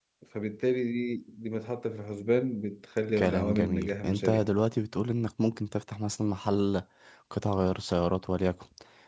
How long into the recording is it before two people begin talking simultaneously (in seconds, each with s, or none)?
3.2 s